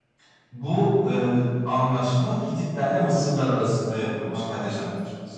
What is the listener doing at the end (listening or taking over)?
listening